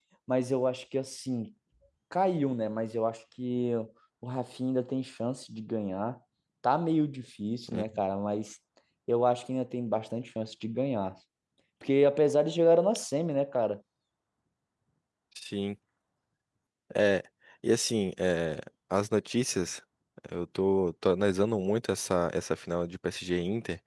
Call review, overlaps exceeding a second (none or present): none